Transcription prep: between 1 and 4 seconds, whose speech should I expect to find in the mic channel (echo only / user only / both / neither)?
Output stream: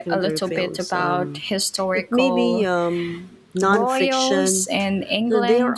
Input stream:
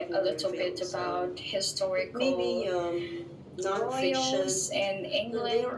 echo only